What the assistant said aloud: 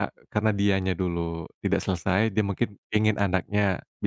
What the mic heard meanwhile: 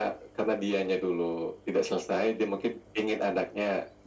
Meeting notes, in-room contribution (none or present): none